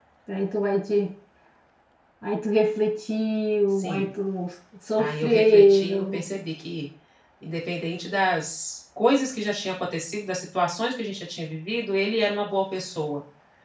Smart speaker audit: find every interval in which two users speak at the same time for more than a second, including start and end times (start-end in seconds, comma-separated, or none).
5.0-6.2